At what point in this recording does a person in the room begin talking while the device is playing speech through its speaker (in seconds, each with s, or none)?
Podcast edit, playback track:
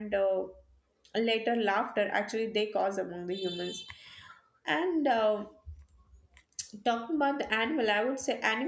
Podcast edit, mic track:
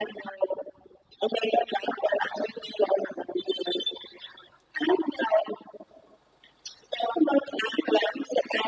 none